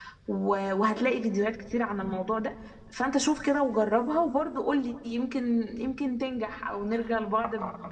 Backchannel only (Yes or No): No